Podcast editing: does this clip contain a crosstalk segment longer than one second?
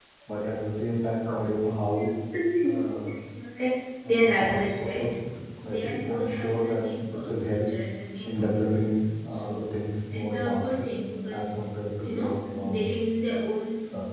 Yes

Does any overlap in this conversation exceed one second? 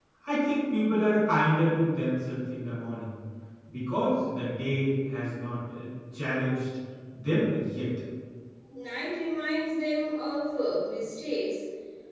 No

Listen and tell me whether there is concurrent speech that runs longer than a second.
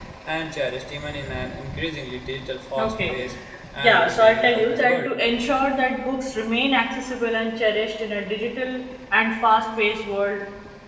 Yes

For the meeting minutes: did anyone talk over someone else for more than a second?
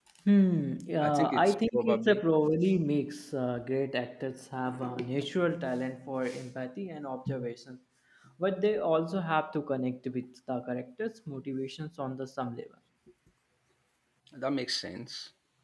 Yes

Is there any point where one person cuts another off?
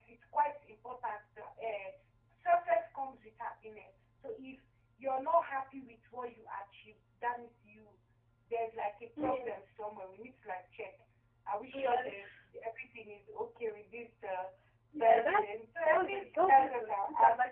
Yes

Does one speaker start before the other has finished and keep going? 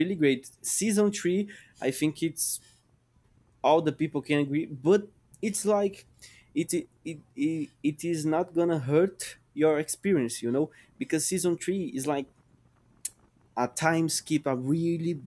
No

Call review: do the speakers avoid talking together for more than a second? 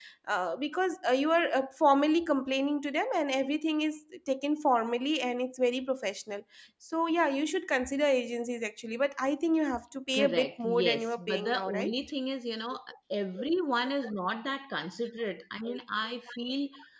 No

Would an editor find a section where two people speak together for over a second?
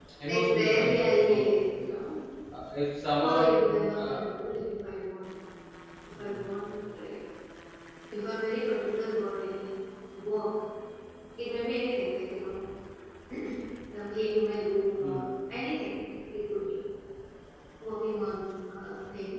Yes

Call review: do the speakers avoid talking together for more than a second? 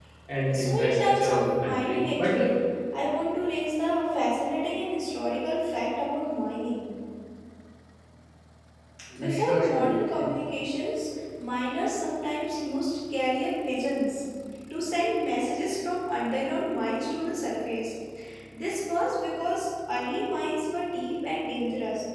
No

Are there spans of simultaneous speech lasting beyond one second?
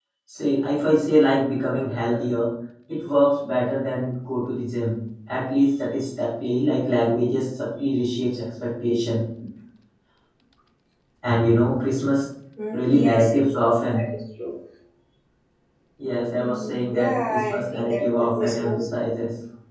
Yes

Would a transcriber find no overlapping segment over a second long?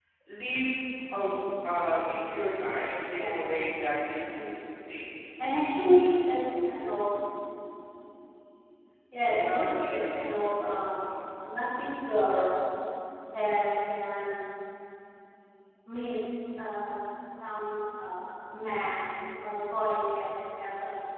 No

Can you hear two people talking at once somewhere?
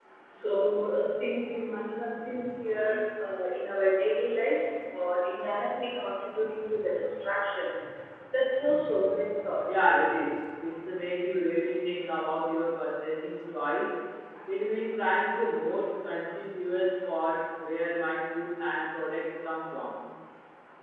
No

